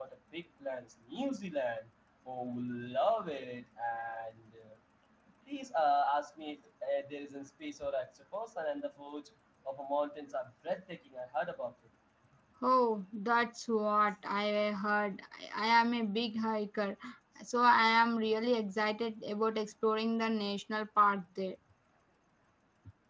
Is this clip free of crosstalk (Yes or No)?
Yes